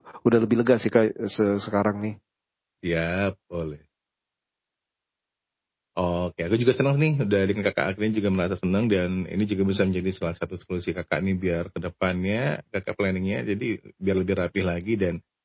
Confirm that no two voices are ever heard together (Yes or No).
Yes